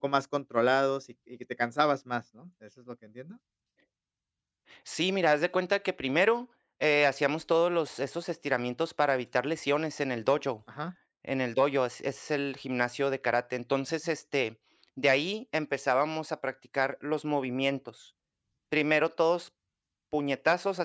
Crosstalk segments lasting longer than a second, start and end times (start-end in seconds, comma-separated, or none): none